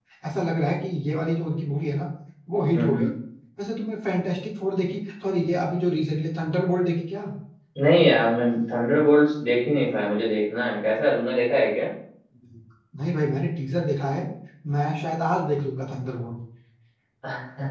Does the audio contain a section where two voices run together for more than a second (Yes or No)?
No